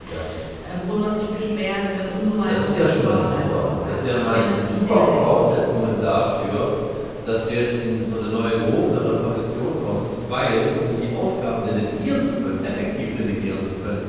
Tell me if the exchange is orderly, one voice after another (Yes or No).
No